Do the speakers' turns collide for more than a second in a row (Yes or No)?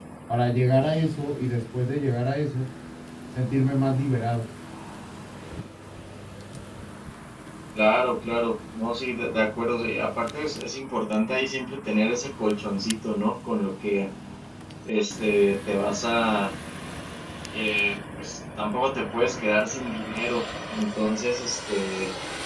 No